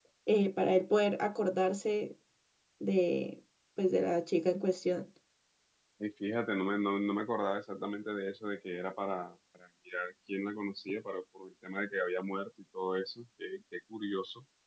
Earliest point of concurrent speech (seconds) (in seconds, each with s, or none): none